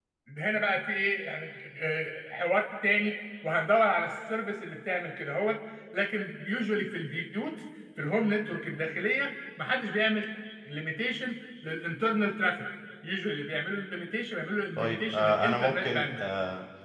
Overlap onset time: 14.8 s

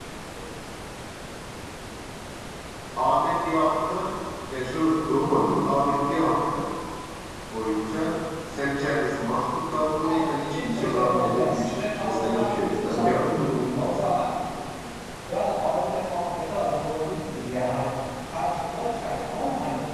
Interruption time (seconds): 10.0 s

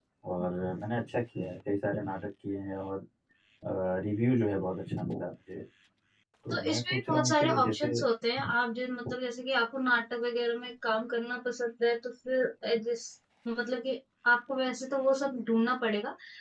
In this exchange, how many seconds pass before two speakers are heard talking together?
6.5 s

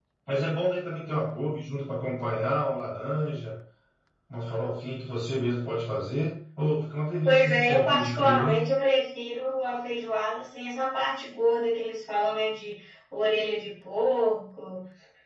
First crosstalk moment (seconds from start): 7.2 s

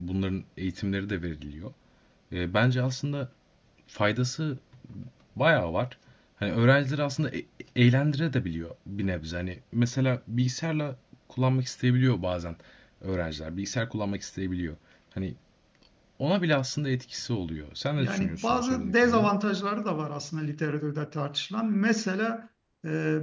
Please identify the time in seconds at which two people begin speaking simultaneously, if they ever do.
18.0 s

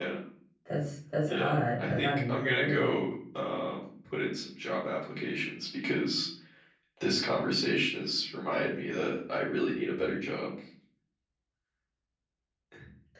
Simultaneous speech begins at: 1.3 s

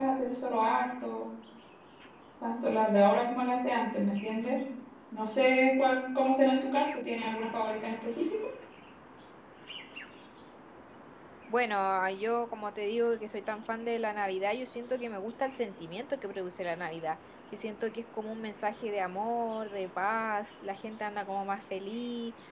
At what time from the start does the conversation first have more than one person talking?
none

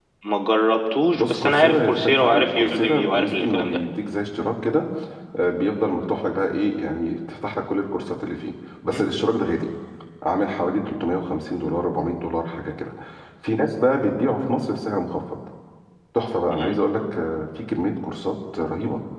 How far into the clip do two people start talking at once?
1.1 s

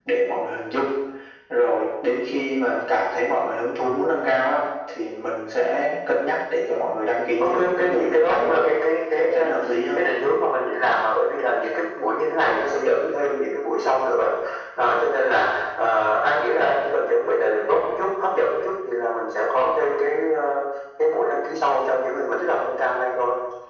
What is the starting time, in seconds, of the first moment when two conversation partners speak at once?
7.4 s

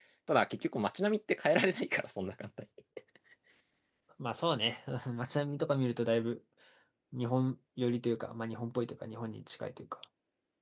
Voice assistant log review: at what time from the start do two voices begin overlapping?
none

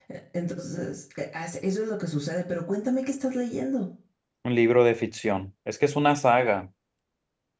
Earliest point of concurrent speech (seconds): none

